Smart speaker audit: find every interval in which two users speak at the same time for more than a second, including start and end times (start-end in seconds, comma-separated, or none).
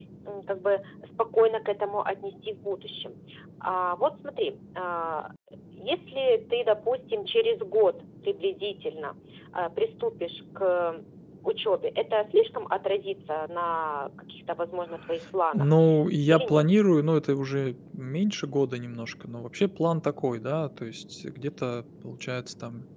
none